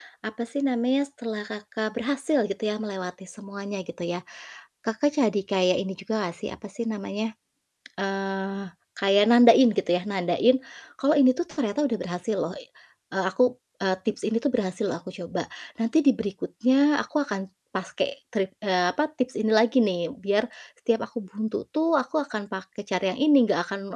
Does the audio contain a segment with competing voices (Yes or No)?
No